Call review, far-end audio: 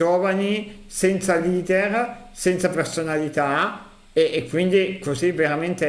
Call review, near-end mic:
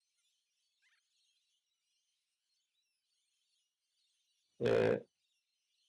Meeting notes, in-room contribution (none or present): present